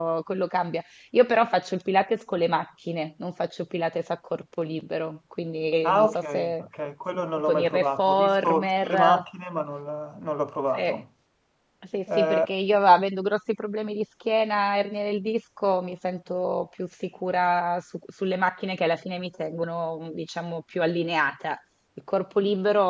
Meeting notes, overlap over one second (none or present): present